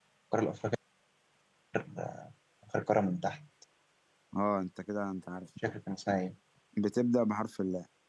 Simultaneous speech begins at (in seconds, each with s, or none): none